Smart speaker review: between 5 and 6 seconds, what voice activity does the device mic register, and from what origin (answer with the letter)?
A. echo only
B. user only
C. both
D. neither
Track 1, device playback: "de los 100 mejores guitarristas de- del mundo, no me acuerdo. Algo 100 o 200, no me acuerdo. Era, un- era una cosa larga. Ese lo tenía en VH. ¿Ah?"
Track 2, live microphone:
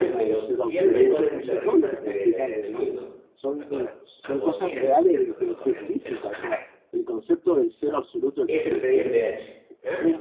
C